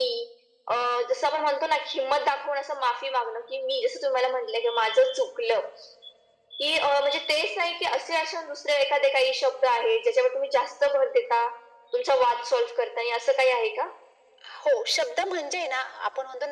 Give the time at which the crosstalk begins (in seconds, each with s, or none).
none